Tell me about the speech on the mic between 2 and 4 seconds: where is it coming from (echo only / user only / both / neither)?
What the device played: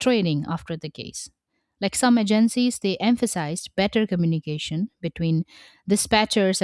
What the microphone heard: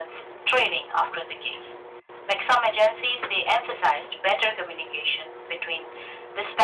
echo only